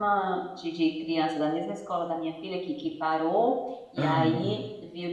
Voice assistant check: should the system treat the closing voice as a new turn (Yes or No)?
No